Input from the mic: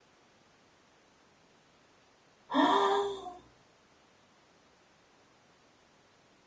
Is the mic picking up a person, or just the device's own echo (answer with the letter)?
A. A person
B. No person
A